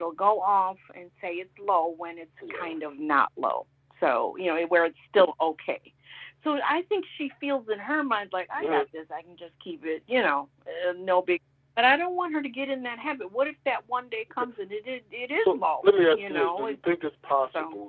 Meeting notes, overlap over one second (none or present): present